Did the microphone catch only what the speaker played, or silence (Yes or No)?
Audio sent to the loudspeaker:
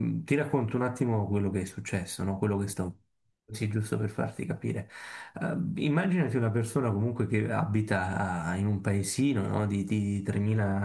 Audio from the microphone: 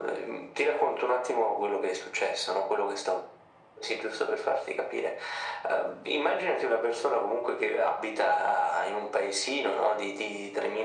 Yes